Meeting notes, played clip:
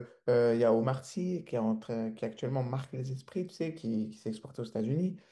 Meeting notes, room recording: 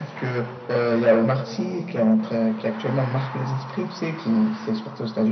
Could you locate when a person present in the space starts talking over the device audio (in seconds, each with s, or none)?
none